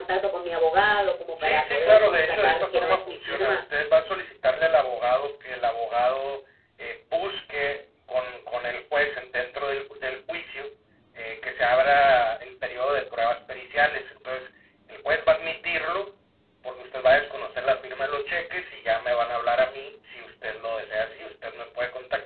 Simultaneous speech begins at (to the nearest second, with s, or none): 1 s